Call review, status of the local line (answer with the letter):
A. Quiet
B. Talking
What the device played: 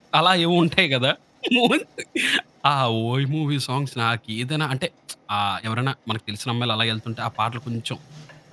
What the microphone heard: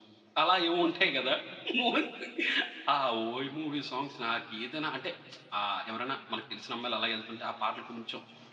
A